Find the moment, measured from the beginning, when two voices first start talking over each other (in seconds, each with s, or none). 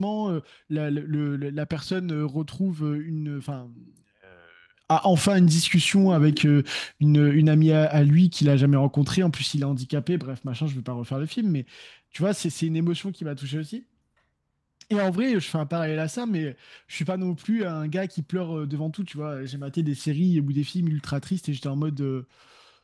none